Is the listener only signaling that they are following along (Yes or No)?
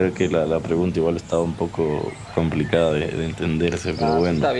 No